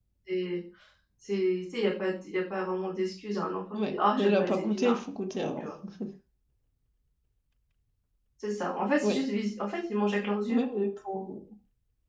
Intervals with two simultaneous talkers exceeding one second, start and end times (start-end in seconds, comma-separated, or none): 3.7-5.0